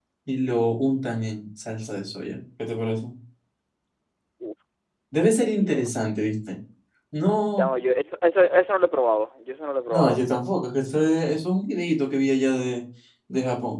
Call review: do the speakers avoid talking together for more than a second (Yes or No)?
Yes